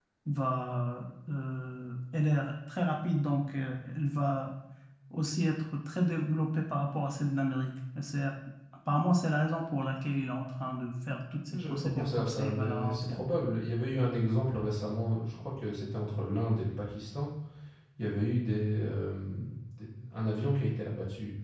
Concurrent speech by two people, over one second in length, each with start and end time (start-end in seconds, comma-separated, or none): 11.5-13.2